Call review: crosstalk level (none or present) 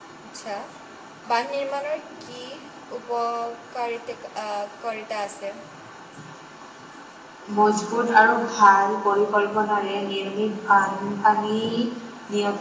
none